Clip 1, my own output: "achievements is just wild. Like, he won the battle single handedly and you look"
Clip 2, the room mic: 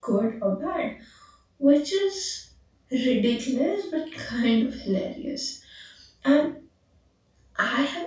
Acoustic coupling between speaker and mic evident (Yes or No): No